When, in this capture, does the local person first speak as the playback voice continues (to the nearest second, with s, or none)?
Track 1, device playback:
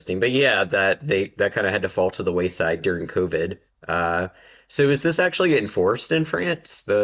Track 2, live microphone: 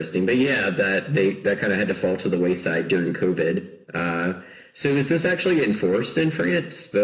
none